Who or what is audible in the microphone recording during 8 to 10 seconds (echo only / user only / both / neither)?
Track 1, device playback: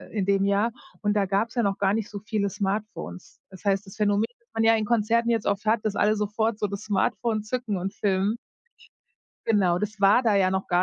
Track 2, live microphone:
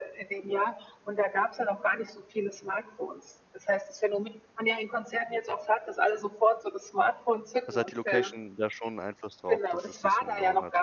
both